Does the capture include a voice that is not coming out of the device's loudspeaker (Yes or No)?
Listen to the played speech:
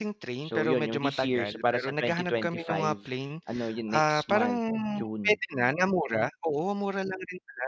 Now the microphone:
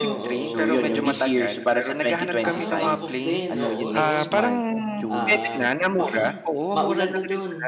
Yes